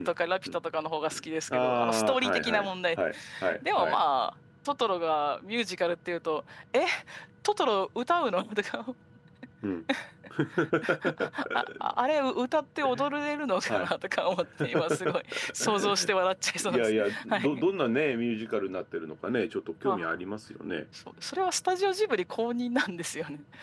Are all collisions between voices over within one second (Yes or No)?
No